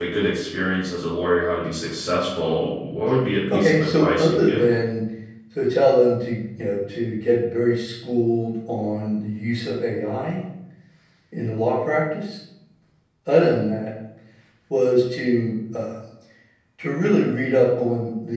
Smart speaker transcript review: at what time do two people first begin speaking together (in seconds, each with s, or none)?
3.5 s